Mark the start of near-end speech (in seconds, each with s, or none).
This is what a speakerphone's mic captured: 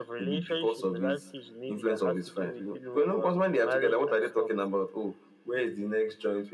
none